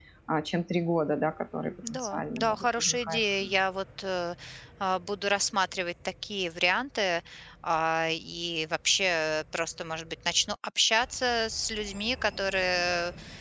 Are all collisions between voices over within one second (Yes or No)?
No